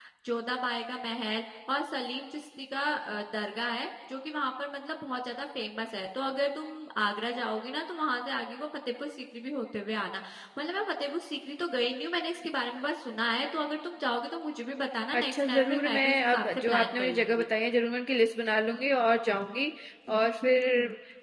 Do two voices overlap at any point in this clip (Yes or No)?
Yes